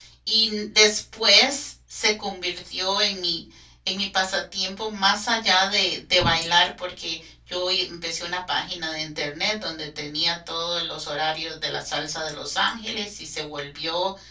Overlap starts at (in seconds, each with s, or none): none